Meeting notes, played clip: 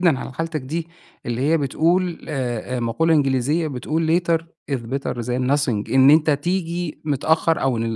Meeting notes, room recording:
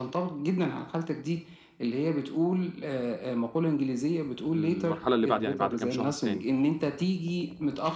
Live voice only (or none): في المرحلة اللي بعدي، يعني بعد كام شهر تاني،